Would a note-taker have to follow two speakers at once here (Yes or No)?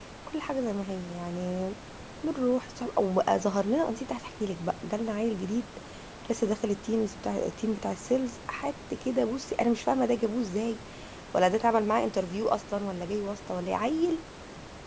No